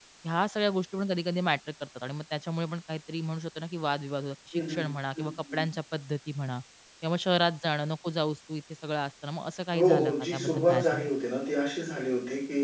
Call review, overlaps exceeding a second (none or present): present